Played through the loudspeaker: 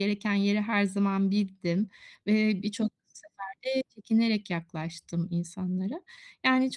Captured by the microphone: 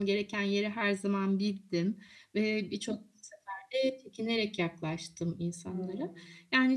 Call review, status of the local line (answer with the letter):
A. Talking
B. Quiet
A